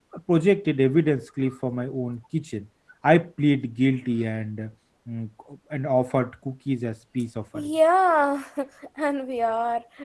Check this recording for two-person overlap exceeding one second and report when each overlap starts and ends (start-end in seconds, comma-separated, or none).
none